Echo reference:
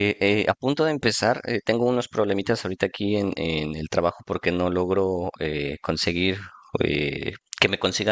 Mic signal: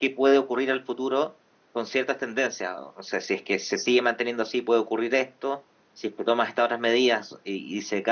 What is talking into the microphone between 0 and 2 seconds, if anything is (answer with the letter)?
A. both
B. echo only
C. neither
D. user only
D